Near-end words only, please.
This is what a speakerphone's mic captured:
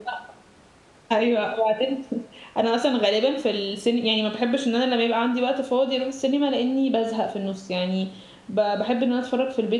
none

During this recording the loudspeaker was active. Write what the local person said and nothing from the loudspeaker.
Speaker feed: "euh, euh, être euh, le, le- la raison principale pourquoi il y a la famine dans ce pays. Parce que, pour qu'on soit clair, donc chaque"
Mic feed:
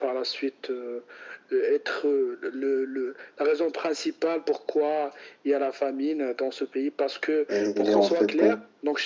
Et en fait,

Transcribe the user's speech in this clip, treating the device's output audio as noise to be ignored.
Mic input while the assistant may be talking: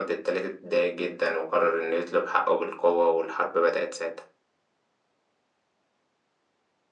none

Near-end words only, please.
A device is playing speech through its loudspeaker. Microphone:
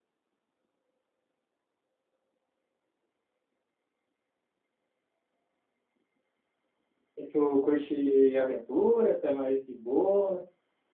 E tu curte aventura? Tu é mais de boa?

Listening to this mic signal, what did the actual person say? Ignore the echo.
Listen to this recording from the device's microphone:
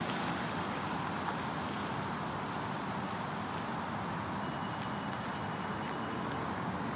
none

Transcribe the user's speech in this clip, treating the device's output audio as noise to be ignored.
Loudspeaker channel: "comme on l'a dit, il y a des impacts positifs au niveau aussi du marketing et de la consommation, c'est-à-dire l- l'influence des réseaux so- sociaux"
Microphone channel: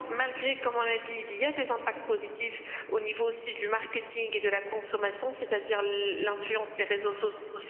none

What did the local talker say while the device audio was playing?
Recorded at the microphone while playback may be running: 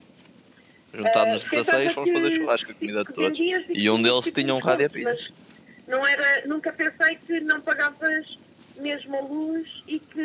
Juntámos-nos 16, fomos fazer churrasco a comida de todos. E um deles tinha um rádio a pilhas.

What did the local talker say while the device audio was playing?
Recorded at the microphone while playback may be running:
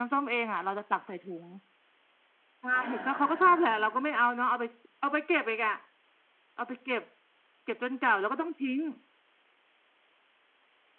อ่าอ่าอ่า

